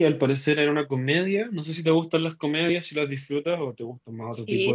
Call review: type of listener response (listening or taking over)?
taking over